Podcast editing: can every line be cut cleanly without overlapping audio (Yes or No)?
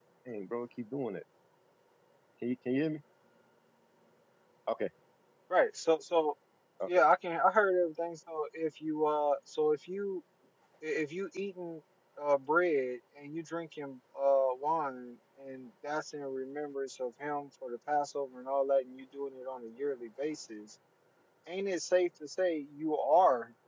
Yes